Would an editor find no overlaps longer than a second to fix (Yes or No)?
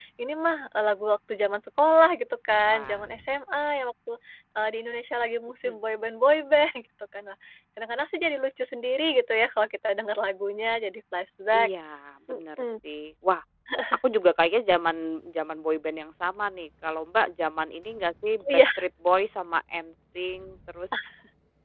Yes